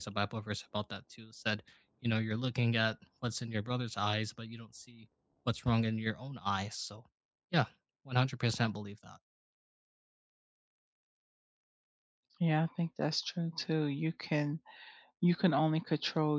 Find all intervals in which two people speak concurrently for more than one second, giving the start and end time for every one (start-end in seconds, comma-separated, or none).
none